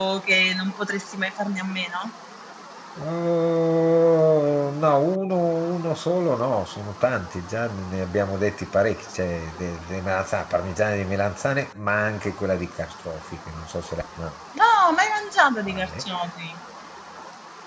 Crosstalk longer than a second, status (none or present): none